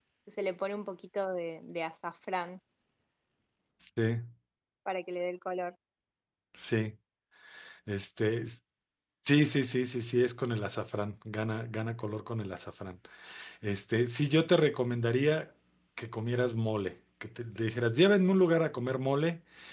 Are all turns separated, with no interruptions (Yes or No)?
Yes